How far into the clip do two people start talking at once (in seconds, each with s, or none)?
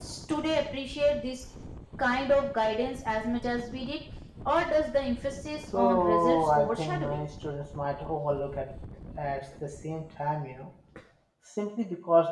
5.7 s